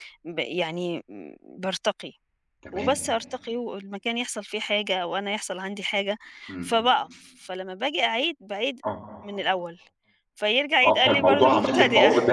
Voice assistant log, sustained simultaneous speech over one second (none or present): present